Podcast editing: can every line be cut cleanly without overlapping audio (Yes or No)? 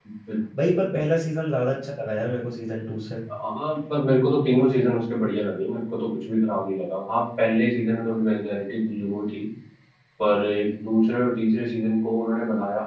Yes